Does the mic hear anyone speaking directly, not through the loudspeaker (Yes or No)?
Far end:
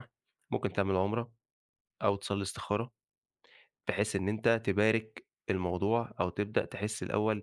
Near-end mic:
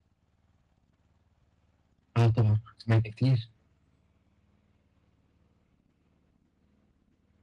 Yes